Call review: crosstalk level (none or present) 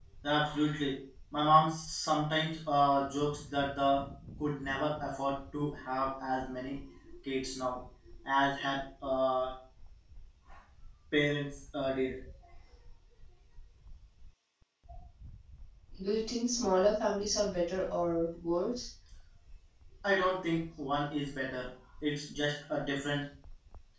none